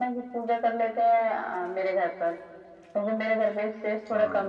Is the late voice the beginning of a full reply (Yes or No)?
No